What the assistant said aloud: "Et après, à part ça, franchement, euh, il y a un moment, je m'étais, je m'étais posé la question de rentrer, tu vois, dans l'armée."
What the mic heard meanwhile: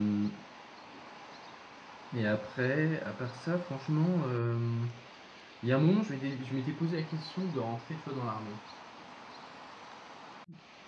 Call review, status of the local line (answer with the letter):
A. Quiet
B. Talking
A